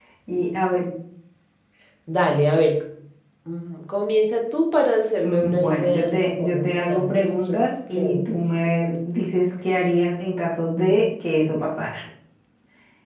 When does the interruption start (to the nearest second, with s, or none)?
5 s